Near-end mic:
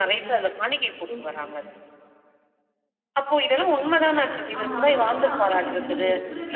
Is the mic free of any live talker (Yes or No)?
No